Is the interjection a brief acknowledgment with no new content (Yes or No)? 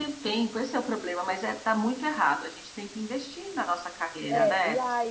No